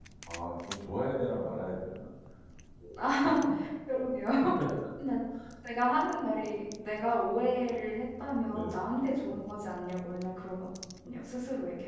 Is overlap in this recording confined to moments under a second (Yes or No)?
Yes